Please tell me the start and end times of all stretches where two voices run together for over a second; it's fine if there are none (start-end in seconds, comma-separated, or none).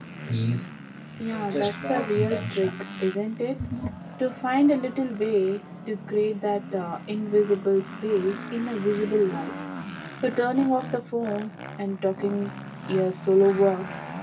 1.3-2.7